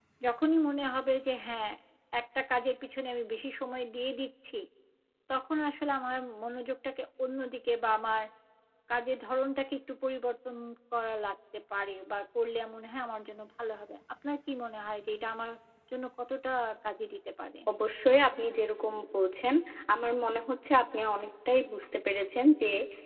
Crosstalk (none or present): none